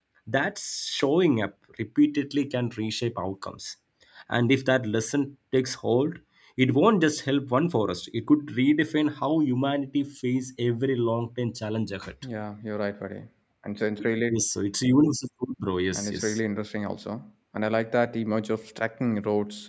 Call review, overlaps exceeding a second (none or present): none